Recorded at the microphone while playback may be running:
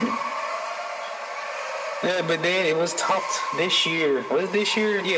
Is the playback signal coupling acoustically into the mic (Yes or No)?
Yes